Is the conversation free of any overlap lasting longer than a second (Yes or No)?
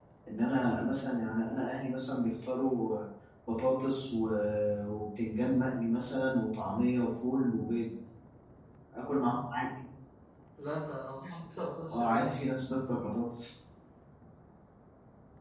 Yes